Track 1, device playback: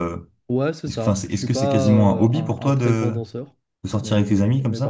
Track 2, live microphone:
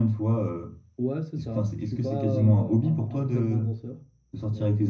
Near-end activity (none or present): none